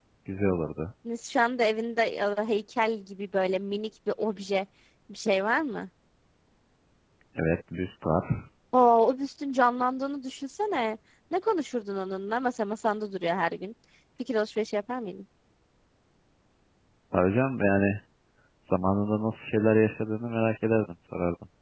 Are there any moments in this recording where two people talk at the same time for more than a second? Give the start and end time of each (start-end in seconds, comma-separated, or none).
none